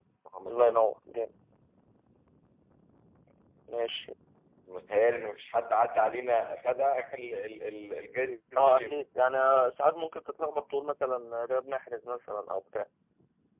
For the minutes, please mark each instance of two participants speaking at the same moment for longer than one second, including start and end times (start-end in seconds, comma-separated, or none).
none